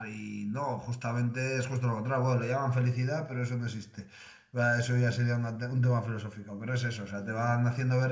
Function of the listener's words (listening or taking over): listening